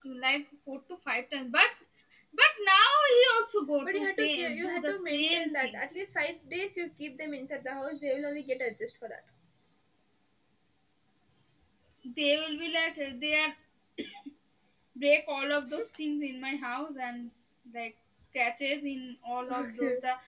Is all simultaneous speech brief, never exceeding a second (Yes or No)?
No